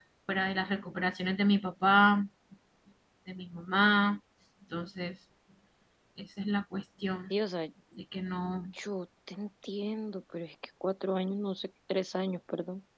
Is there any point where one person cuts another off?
No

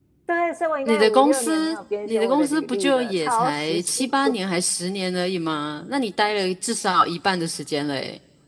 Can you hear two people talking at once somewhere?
Yes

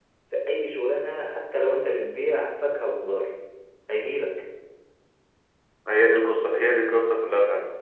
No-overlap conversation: Yes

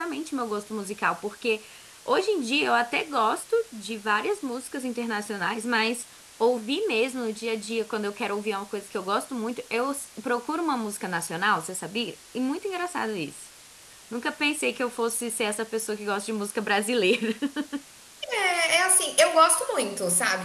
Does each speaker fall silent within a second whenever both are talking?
Yes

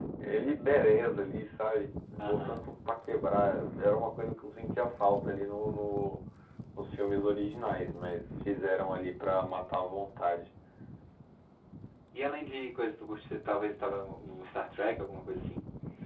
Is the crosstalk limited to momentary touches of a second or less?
Yes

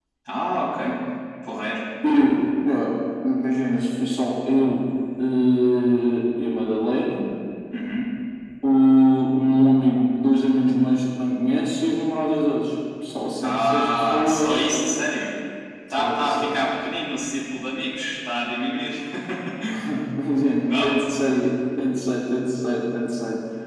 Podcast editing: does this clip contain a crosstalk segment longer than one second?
Yes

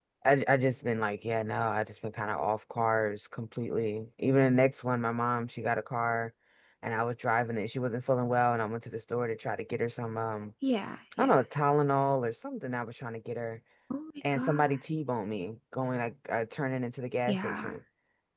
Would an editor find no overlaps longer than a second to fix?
Yes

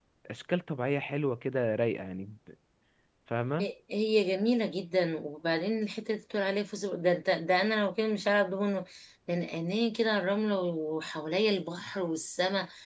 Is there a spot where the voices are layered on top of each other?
No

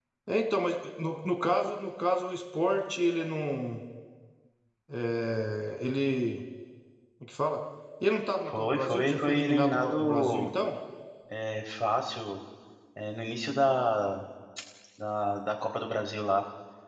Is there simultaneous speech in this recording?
Yes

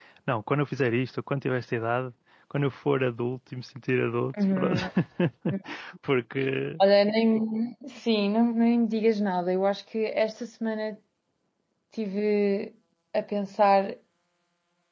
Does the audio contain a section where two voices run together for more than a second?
No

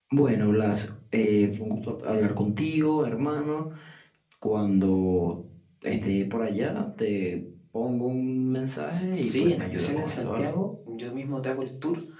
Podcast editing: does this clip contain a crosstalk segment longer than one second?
Yes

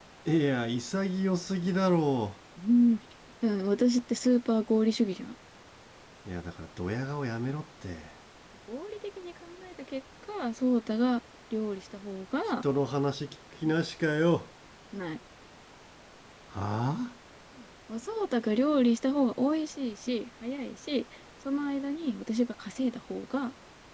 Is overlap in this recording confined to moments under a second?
Yes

